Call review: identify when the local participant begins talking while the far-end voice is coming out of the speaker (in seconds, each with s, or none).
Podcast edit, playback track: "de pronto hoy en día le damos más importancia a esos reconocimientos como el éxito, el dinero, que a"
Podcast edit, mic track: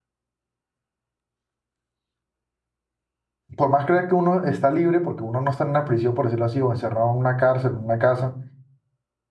3.5 s